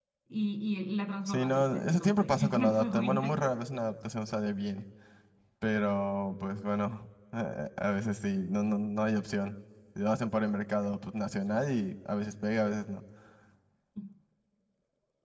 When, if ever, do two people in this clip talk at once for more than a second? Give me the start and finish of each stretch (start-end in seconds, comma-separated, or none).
1.3-3.5